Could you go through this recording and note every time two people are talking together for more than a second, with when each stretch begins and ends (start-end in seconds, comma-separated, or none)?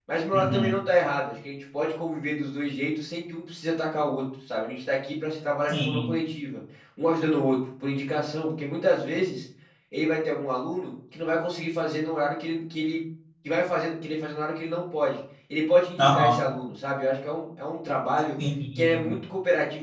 none